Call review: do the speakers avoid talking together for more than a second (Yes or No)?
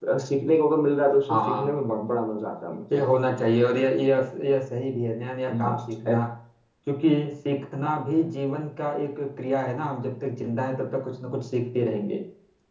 Yes